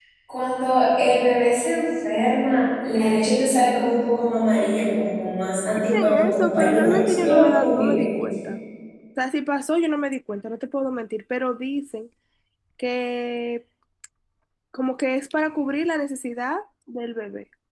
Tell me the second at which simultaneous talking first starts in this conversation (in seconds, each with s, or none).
5.9 s